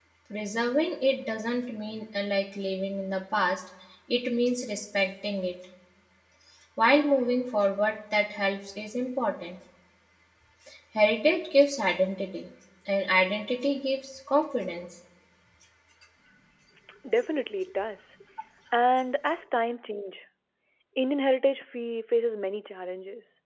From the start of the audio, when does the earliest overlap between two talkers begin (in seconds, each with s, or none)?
none